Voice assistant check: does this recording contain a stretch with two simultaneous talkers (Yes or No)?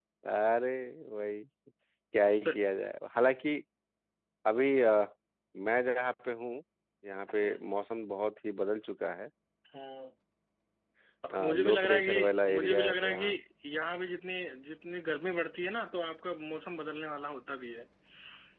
Yes